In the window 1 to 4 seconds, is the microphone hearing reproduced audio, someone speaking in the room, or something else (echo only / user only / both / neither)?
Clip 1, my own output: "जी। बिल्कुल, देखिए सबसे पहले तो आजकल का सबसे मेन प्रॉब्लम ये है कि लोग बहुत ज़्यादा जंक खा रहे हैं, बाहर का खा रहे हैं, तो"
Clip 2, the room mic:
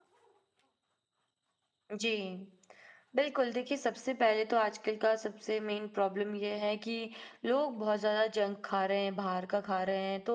echo only